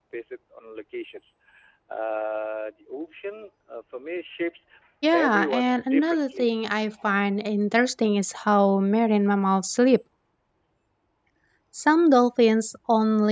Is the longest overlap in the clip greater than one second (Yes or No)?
Yes